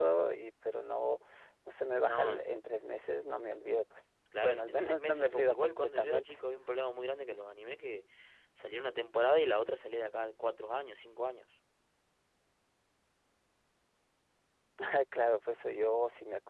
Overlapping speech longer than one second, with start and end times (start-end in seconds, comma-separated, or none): 4.4-6.3